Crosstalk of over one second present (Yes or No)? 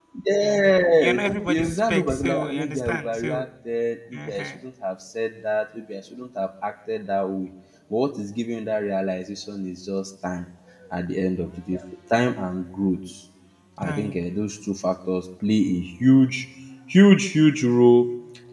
Yes